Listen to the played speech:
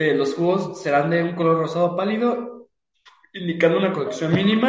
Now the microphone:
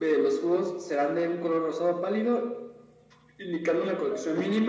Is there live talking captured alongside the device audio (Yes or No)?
No